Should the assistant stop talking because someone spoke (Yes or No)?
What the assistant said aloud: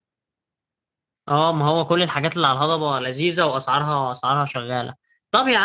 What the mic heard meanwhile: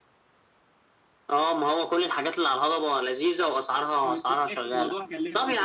Yes